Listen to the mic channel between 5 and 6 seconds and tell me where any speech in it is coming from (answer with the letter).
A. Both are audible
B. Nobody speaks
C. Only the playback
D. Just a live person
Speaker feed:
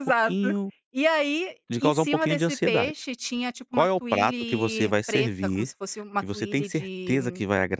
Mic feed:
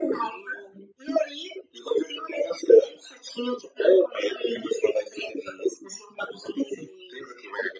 C